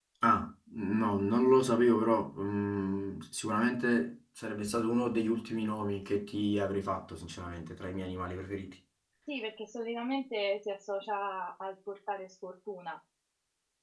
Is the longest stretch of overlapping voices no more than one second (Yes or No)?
Yes